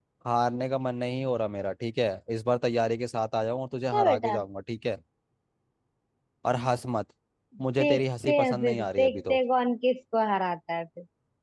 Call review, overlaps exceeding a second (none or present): present